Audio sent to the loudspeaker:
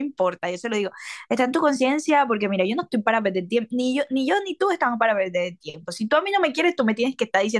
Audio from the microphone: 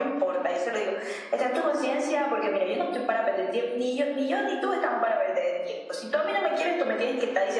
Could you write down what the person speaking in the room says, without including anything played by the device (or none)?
none